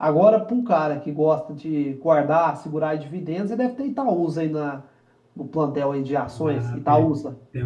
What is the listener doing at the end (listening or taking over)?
taking over